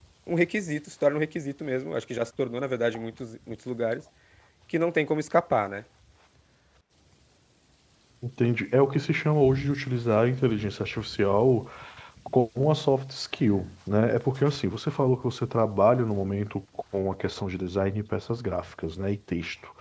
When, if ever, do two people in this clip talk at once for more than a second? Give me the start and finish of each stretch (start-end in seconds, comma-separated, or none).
none